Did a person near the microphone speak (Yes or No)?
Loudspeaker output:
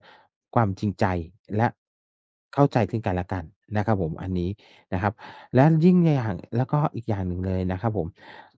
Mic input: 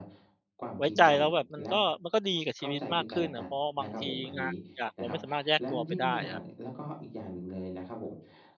Yes